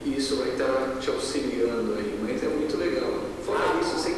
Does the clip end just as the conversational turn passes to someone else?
No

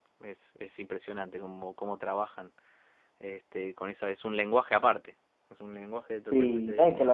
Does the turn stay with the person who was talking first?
No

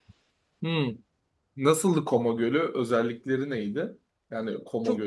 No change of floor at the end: No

